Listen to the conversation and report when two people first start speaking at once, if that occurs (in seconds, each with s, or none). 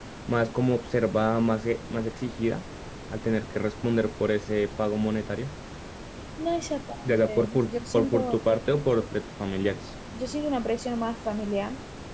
7.0 s